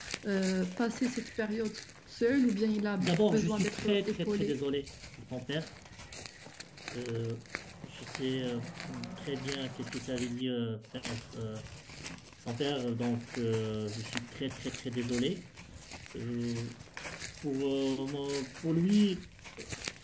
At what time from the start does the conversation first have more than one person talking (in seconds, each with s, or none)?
3.0 s